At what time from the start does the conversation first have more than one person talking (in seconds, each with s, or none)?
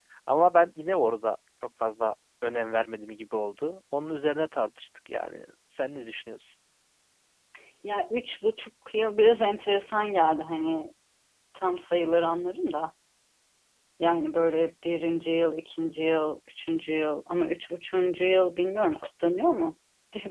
none